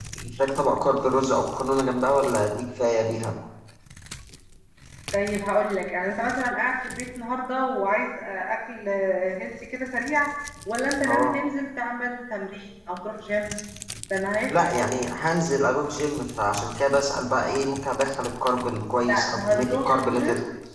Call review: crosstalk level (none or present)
present